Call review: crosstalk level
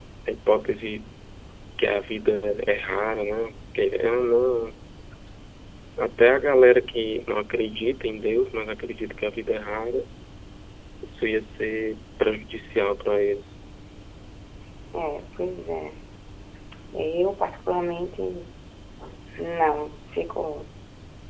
none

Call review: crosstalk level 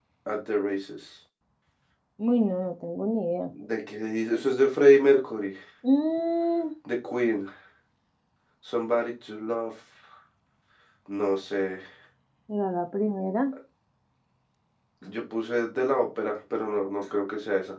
none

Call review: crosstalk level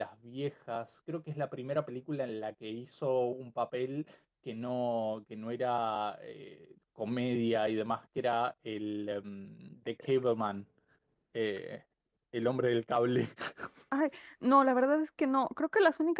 none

